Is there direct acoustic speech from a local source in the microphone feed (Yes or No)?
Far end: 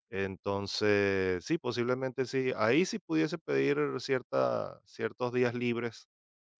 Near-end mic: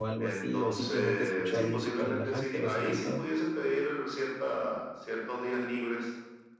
Yes